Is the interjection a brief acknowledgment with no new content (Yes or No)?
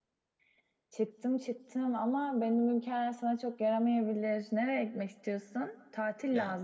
Yes